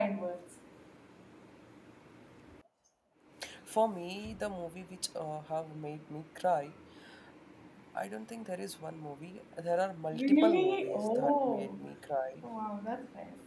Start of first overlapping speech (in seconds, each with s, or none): 10.1 s